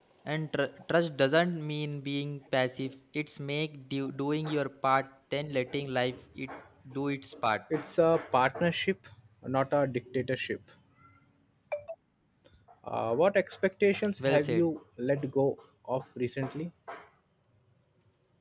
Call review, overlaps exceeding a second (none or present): none